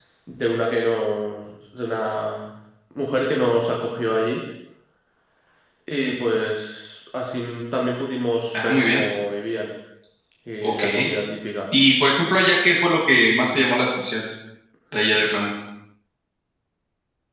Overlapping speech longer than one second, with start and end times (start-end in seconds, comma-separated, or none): none